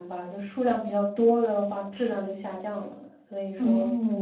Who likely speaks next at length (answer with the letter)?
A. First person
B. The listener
B